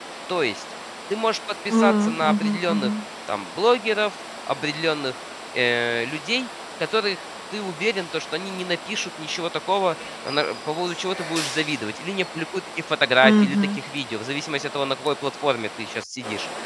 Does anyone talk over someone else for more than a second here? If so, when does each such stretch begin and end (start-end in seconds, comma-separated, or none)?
1.7-2.9